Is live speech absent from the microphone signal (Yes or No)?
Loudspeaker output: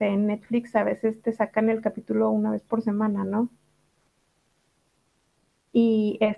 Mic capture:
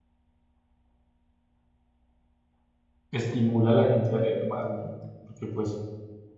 No